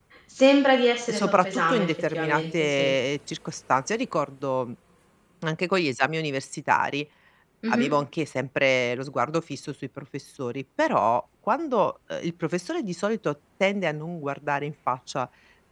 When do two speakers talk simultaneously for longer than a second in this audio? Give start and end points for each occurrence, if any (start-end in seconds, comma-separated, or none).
1.1-2.9